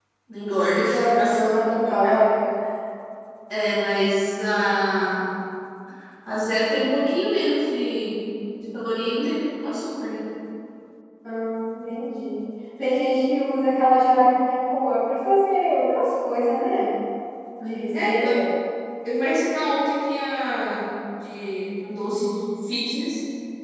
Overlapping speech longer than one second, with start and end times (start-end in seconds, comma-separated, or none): 0.9-2.2